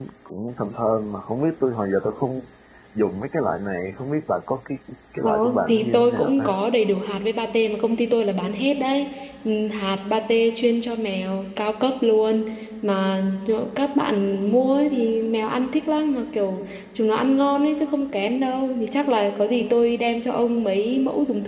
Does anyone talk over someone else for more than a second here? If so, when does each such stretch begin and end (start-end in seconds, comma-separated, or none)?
5.2-6.5